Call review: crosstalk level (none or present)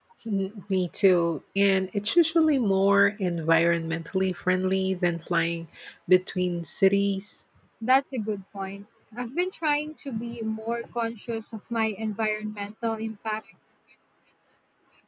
none